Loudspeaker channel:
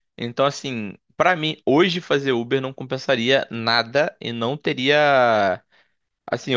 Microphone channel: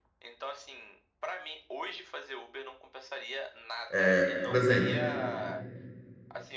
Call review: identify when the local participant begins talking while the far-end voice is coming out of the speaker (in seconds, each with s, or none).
3.9 s